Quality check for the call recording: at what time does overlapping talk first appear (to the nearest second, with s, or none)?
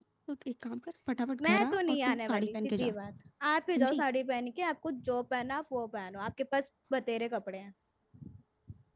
1 s